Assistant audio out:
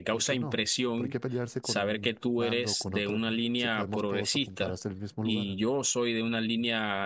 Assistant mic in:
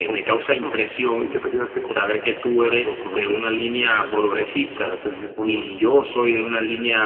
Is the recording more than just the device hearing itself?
No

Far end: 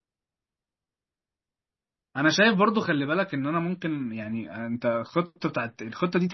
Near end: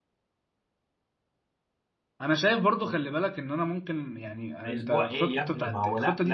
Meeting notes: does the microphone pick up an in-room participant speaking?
Yes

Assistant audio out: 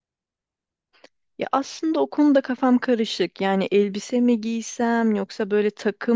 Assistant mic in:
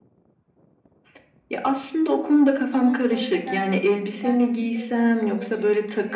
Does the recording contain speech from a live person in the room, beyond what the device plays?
Yes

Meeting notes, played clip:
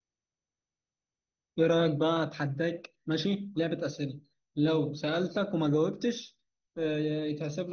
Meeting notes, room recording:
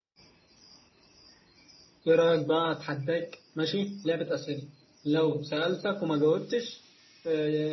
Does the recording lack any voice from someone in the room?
Yes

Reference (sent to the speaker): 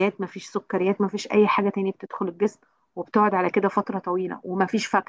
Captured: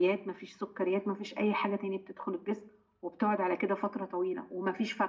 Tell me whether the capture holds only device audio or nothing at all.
Yes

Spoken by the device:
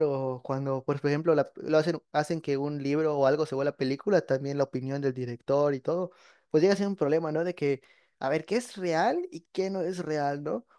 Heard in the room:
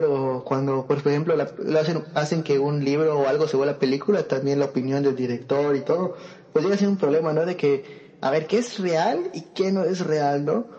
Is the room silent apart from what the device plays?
Yes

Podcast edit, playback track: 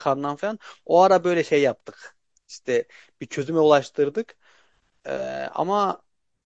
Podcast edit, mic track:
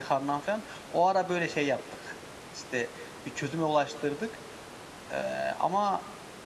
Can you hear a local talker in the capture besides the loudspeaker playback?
No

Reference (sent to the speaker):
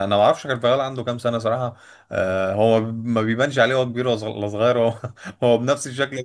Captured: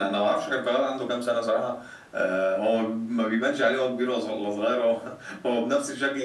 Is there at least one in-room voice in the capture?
No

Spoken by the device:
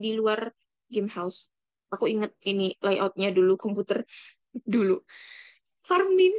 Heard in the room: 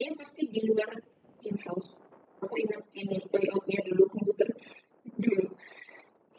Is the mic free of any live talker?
Yes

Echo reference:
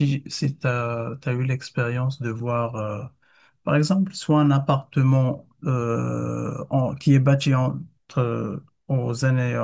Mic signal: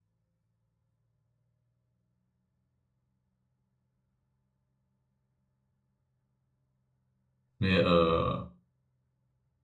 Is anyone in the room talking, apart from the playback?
Yes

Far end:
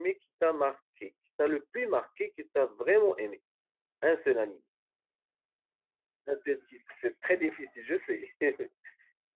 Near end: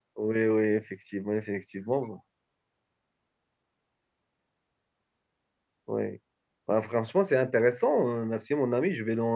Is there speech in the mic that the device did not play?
Yes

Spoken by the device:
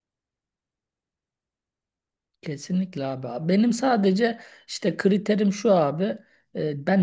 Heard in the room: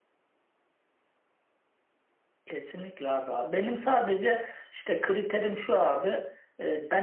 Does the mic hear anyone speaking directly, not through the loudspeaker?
No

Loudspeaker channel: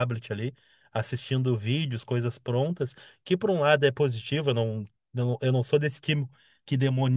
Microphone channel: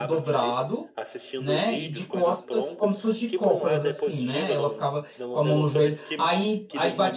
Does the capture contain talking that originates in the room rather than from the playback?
Yes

